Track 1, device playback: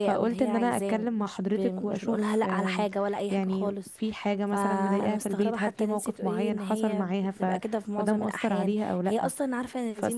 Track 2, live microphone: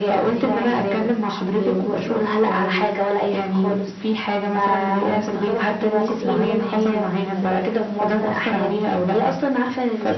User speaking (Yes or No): Yes